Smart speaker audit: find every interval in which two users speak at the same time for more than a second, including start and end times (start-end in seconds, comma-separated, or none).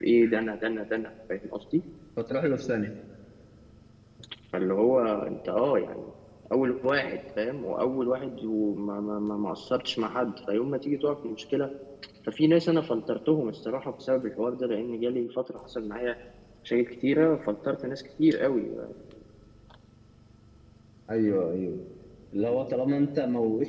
none